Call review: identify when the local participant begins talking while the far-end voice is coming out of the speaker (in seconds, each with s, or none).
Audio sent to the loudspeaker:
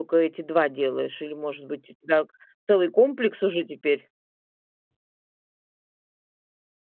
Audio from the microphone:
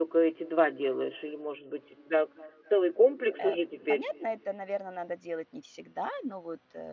3.4 s